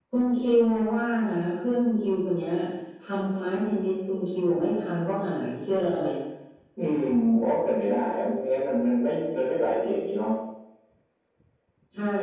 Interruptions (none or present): none